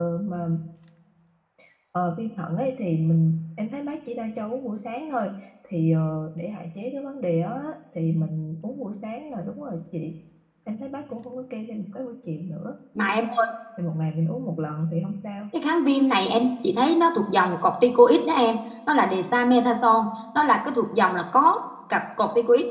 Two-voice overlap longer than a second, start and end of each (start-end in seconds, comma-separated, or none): none